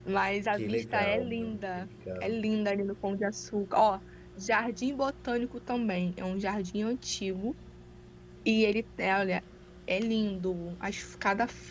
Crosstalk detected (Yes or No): Yes